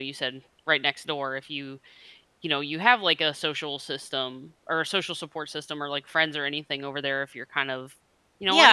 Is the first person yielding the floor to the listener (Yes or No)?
Yes